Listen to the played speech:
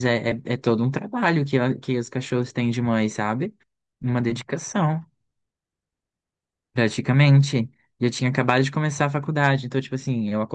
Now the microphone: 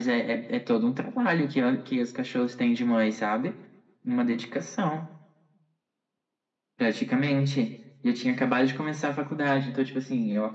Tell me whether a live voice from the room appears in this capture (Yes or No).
No